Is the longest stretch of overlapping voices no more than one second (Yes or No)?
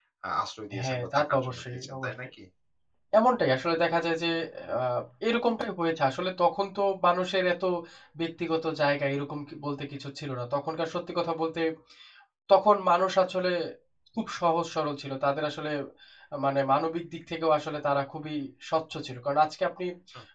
No